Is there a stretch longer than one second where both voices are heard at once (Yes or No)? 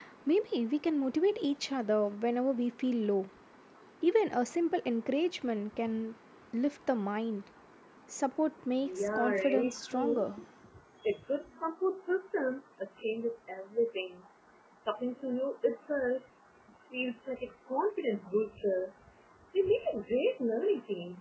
Yes